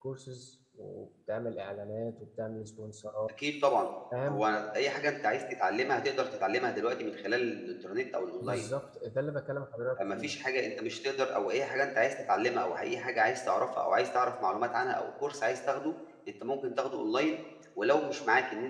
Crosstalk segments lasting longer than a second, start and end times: none

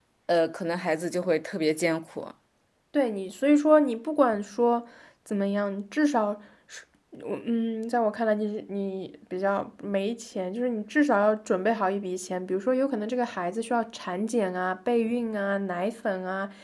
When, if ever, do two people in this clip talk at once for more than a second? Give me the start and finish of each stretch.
none

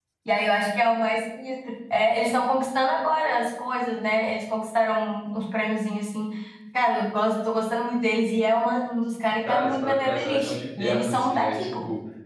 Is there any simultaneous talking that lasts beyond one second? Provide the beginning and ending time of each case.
9.4-11.7

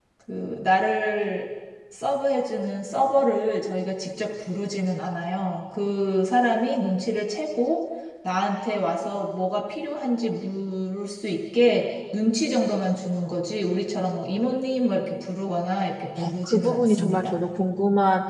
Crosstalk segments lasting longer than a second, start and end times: 16.2-17.4

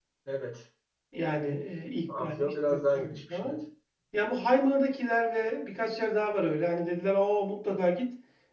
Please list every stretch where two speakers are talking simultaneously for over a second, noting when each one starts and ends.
2.2-3.6

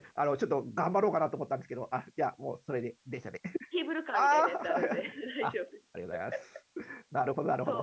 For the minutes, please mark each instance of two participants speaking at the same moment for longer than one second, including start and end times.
4.1-5.5

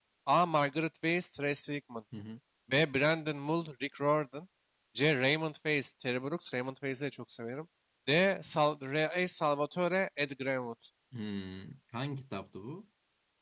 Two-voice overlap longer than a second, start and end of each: none

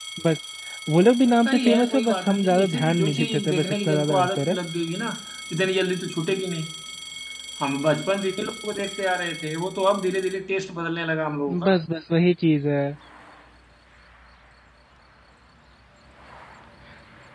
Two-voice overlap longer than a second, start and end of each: 1.4-4.6

